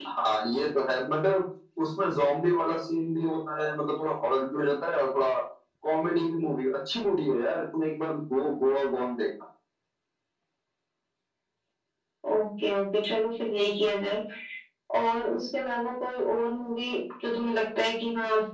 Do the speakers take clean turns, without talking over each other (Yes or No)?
Yes